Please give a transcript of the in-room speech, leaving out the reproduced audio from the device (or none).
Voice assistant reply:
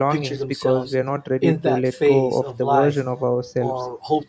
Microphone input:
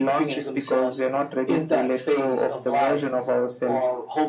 none